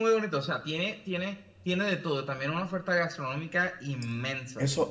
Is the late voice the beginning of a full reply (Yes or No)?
Yes